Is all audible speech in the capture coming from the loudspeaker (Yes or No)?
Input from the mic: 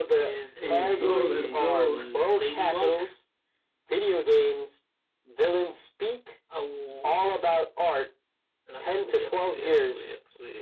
No